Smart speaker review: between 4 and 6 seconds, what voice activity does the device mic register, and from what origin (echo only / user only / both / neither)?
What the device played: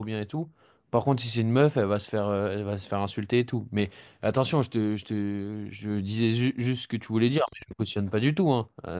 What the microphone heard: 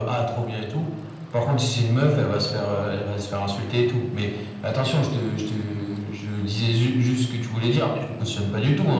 echo only